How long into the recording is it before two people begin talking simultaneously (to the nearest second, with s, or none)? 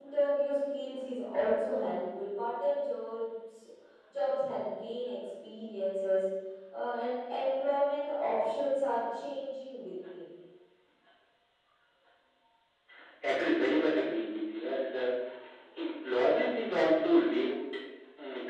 none